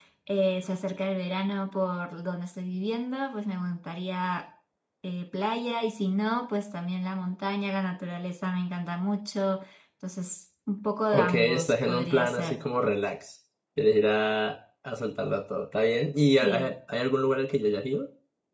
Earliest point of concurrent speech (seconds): 11.1 s

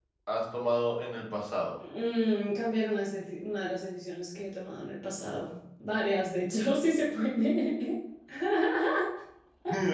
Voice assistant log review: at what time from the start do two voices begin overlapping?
none

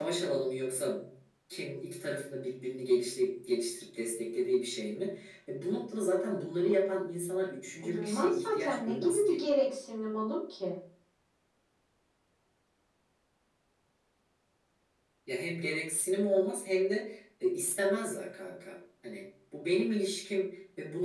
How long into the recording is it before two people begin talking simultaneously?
7.9 s

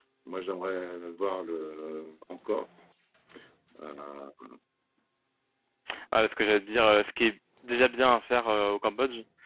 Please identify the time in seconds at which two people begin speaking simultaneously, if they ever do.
none

